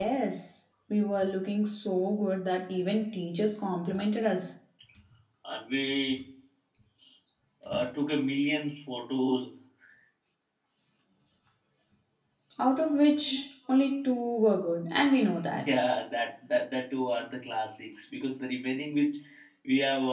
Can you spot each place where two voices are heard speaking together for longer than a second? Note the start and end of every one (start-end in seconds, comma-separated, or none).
none